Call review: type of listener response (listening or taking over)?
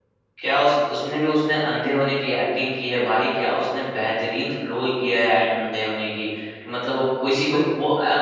listening